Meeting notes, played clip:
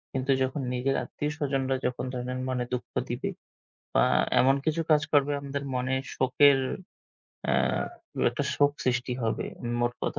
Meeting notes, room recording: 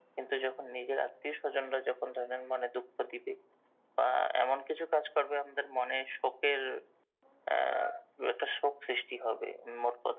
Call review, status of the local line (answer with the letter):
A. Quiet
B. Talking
A